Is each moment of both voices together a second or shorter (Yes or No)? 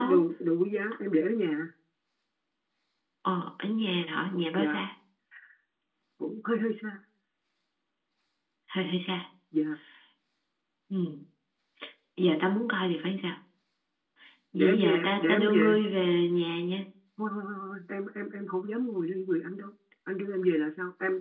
No